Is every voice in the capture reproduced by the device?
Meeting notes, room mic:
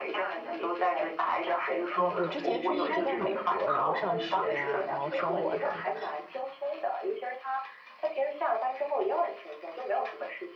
No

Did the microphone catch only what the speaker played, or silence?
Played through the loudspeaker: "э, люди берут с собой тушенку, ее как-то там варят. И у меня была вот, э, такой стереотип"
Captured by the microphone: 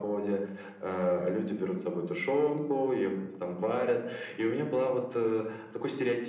Yes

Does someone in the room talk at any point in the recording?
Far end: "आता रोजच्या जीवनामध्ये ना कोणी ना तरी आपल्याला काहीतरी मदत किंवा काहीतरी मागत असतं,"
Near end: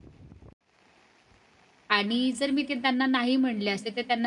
Yes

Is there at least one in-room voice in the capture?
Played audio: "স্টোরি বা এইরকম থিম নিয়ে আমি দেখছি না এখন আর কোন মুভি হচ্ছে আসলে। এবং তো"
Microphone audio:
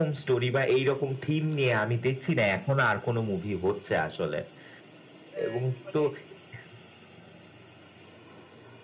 Yes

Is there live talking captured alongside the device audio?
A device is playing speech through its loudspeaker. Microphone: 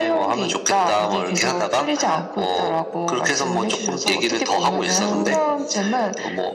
Yes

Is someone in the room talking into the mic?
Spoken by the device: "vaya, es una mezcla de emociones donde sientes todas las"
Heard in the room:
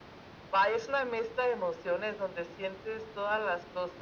No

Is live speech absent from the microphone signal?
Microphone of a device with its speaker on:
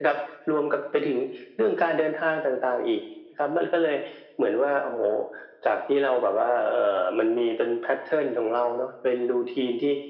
Yes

